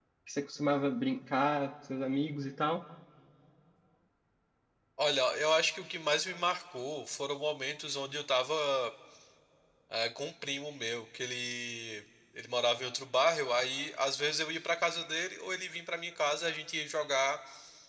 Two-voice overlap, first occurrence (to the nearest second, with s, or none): none